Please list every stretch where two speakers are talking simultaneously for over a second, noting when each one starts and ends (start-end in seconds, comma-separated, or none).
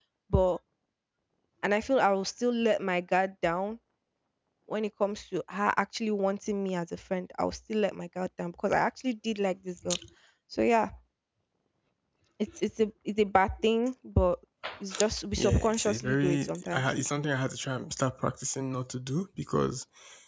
15.4-16.8